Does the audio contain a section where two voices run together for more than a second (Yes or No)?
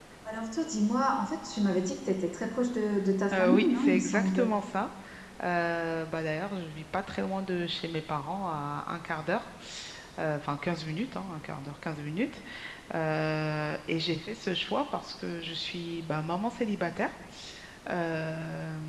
Yes